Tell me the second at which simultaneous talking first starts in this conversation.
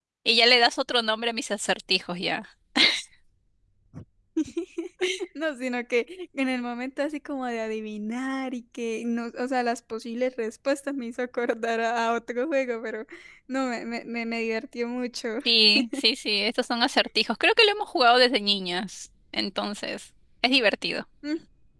none

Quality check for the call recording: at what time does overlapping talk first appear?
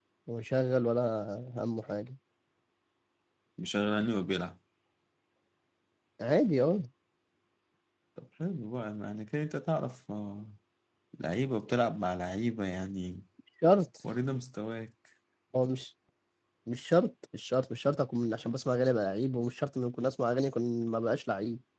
none

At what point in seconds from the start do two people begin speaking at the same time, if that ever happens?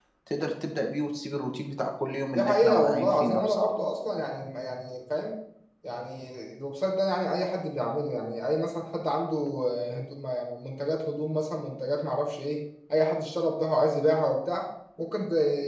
2.3 s

